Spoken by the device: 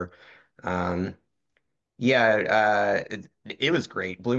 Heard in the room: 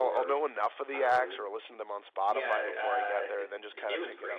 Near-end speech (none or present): present